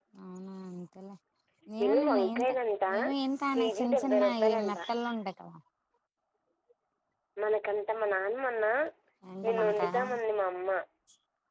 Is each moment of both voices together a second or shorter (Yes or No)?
No